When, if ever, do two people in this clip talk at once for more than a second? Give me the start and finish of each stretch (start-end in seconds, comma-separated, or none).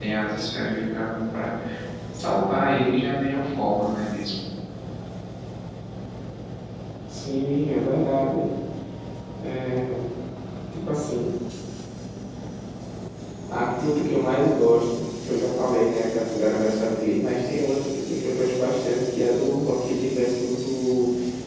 none